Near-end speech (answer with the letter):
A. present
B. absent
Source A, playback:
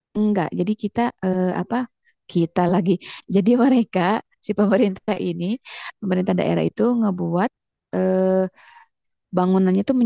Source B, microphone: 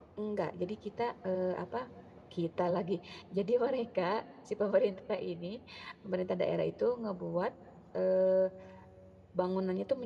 B